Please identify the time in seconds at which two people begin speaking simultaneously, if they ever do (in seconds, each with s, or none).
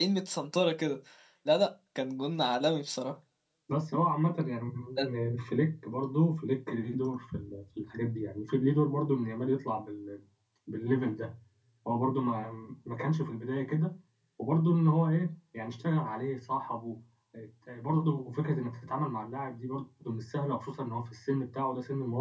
none